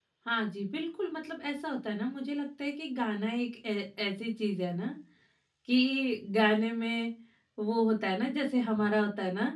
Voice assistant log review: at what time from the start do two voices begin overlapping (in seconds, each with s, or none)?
none